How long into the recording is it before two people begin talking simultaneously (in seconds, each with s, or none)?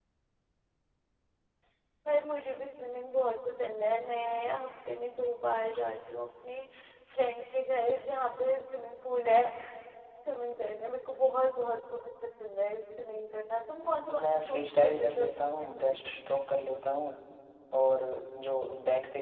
14.1 s